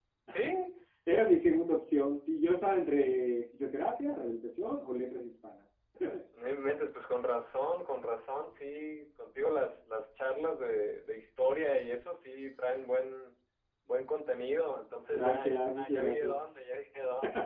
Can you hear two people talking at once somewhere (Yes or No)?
Yes